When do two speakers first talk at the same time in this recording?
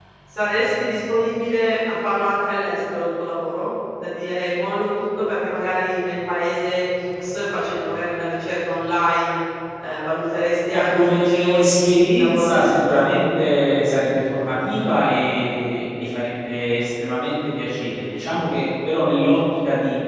10.7 s

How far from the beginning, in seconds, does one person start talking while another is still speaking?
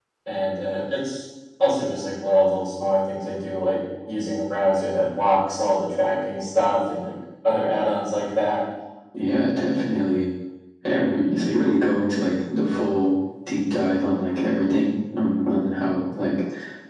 none

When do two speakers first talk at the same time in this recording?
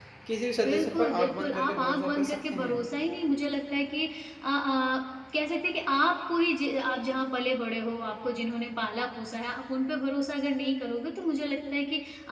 0.7 s

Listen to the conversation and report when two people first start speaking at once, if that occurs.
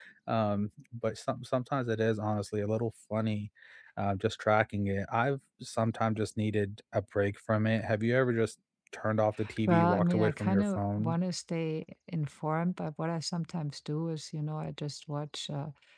9.7 s

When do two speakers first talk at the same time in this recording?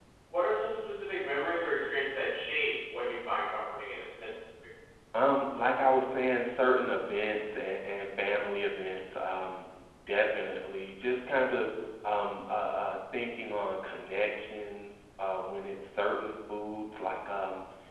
none

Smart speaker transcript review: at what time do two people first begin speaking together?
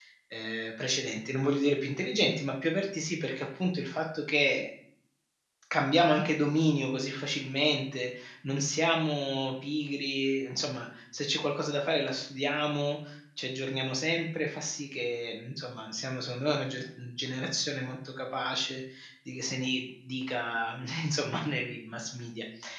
none

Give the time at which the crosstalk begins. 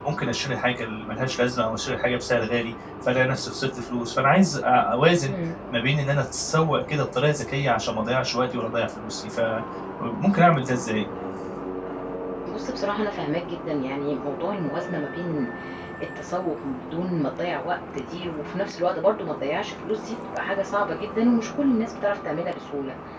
none

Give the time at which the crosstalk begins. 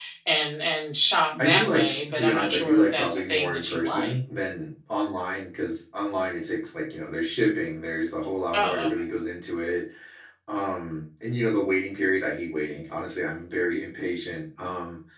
1.4 s

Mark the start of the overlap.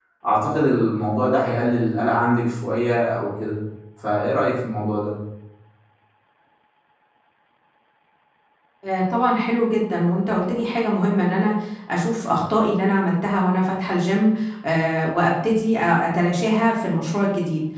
none

